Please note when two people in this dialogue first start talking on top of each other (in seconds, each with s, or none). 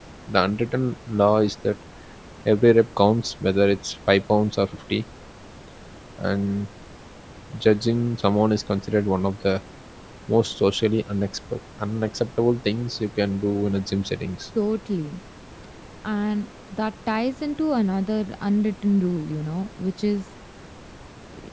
none